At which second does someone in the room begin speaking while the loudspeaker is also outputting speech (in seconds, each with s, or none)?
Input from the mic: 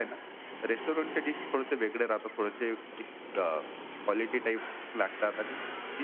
none